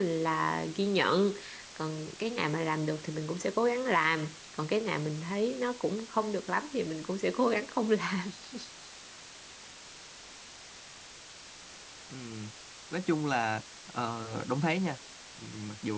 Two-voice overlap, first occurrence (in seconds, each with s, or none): none